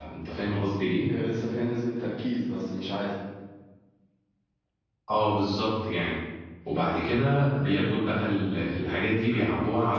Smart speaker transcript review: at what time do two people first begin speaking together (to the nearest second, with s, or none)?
none